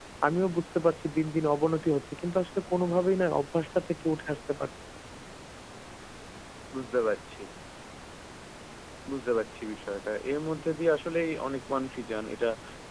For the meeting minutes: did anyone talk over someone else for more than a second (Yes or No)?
No